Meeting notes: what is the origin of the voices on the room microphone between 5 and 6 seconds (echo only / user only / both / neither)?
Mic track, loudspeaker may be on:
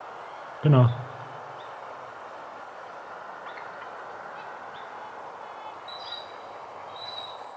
neither